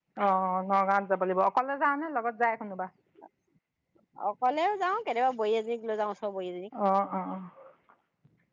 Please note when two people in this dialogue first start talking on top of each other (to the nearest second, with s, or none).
none